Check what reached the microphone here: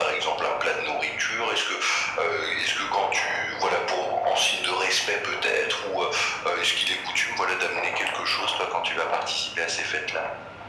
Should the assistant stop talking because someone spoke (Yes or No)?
No